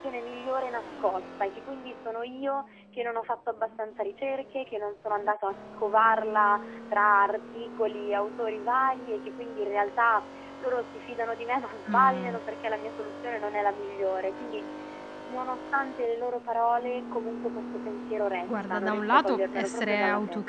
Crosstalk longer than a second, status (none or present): present